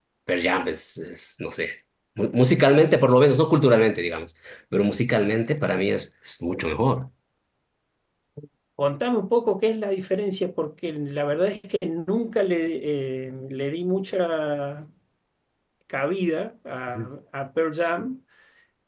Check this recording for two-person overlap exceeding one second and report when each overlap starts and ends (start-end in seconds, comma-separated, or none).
none